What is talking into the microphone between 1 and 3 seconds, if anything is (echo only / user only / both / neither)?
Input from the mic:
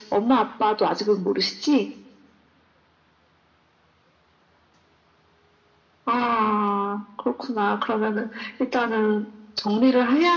echo only